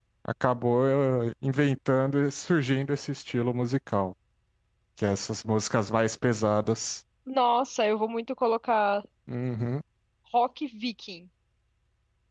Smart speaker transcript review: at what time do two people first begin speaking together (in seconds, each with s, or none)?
none